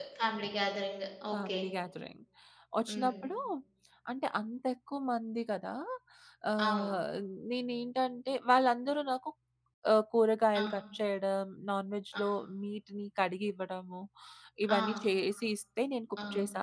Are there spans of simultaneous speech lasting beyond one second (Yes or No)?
No